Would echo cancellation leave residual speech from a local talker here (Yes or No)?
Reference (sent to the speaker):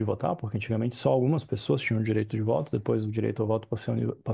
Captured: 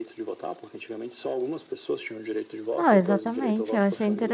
Yes